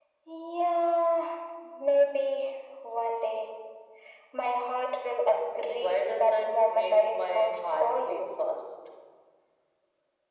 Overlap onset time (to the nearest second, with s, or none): 6 s